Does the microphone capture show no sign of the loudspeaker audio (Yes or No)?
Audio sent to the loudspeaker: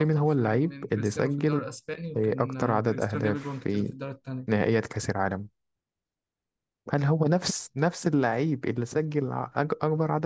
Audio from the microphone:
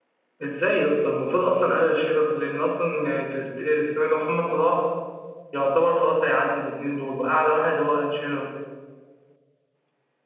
Yes